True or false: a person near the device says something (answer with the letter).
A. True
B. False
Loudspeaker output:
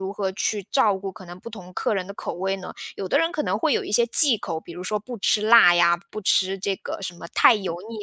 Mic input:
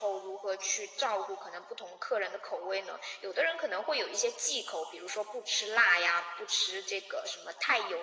B